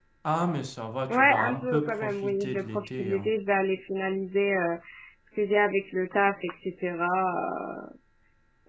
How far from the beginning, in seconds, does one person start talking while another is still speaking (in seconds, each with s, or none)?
1.1 s